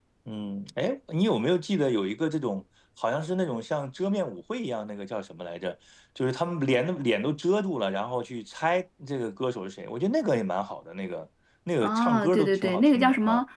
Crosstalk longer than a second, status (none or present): present